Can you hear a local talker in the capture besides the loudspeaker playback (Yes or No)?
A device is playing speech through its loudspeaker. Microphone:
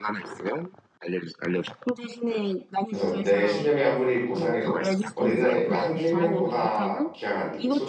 Yes